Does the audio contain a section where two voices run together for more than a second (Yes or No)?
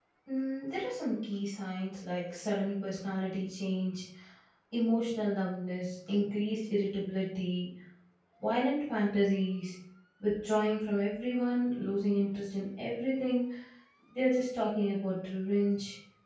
No